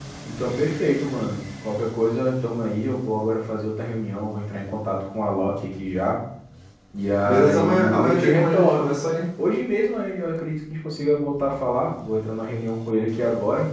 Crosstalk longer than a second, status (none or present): present